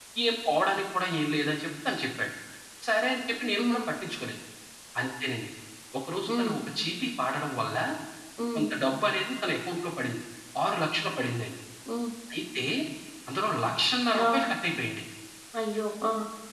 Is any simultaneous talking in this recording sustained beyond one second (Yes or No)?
No